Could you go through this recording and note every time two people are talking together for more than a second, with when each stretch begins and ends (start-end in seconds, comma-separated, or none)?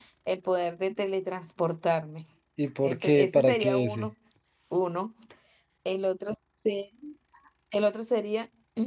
2.8-4.1